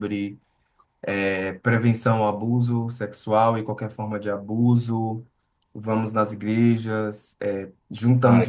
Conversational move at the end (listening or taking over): listening